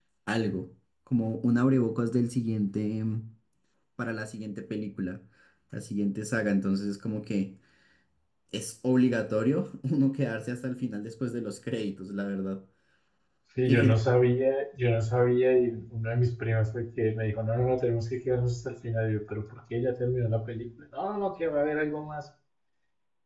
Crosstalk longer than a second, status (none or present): none